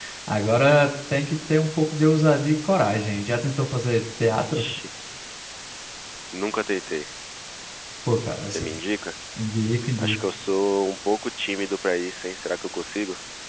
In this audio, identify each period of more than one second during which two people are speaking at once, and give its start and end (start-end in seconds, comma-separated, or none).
none